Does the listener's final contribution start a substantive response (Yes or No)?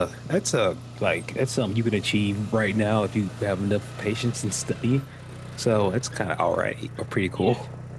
Yes